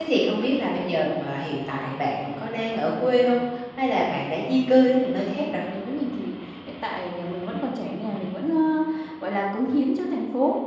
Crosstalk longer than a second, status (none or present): none